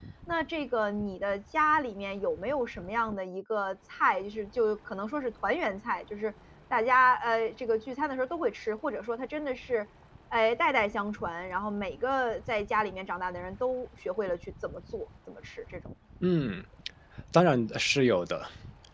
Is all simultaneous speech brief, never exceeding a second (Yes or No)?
Yes